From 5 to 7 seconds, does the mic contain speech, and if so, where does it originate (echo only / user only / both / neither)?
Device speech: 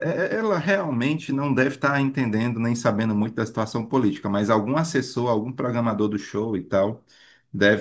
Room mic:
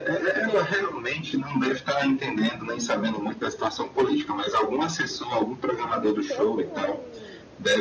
both